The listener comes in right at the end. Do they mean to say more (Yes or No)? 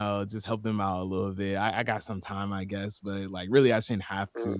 Yes